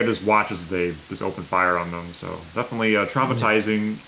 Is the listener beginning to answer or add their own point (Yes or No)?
No